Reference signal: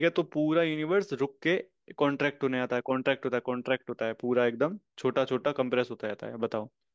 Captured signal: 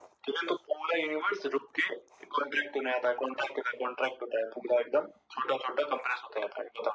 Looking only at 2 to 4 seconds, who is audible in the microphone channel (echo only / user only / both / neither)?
echo only